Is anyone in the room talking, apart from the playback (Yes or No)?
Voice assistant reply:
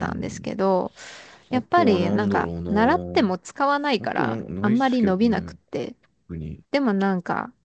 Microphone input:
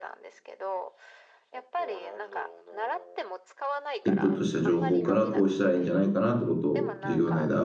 Yes